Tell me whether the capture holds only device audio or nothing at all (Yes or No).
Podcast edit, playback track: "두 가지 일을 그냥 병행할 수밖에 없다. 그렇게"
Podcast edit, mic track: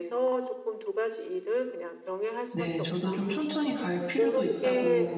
No